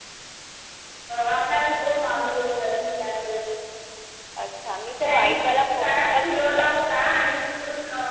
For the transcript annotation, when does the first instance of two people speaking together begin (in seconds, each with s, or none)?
5.0 s